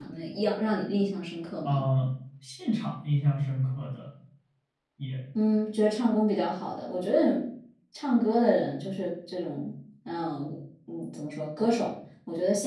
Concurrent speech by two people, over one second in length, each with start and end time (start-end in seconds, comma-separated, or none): none